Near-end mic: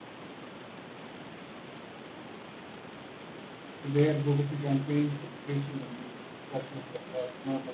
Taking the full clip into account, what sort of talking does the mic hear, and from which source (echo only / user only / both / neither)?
user only